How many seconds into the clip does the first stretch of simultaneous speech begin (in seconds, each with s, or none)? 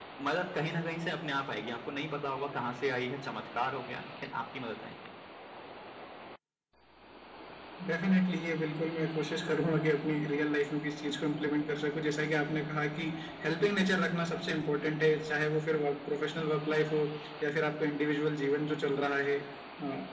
none